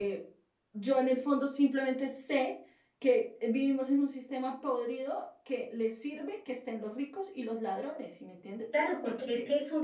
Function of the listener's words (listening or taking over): taking over